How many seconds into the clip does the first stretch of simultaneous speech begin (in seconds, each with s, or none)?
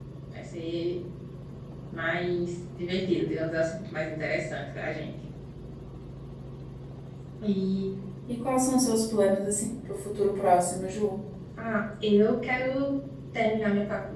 none